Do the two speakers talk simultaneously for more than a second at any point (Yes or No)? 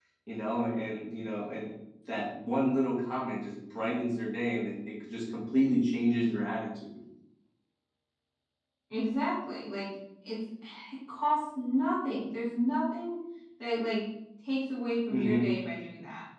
No